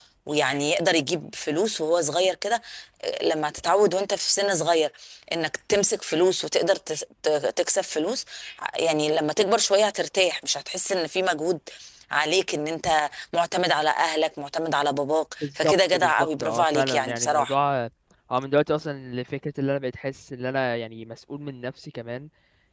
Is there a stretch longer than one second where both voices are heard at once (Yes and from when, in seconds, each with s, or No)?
Yes, from 15.4 s